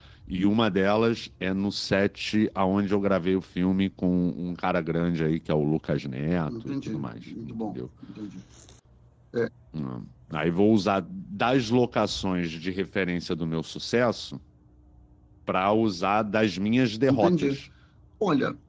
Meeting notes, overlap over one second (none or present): present